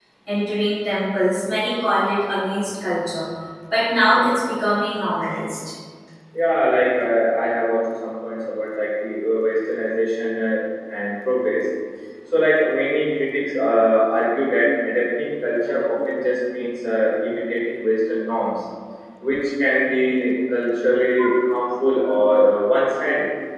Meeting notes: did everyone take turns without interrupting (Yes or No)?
Yes